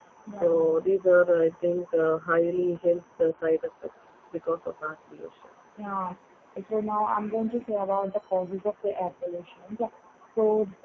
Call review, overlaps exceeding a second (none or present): none